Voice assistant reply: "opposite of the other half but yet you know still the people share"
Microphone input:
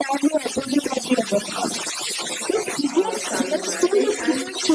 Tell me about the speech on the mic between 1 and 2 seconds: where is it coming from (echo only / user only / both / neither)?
echo only